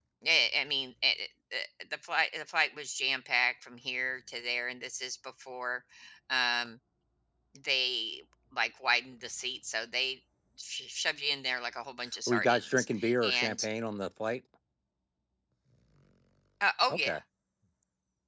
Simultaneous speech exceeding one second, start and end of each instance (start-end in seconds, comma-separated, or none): 12.3-13.6